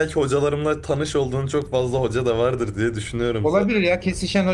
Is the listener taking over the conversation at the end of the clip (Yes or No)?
Yes